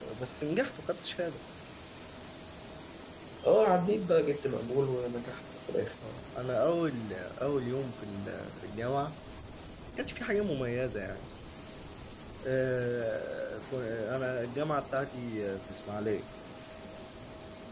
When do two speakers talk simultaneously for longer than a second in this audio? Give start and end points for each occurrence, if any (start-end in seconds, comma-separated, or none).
none